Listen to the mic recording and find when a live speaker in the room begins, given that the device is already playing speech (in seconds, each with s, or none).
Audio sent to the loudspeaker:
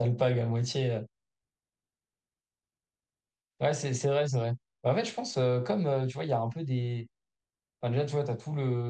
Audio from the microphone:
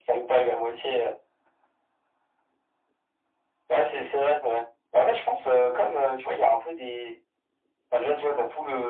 none